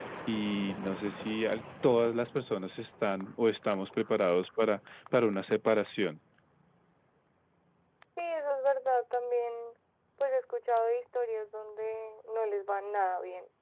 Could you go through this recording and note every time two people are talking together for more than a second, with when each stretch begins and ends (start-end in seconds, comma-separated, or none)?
none